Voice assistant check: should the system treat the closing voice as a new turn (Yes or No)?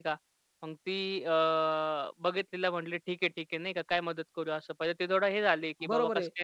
Yes